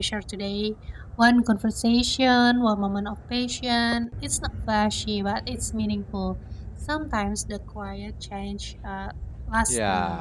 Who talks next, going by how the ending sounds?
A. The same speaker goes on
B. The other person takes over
B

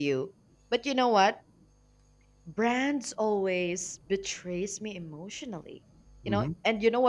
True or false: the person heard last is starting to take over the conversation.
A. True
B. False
B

